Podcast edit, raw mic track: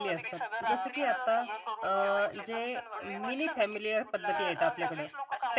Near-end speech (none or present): present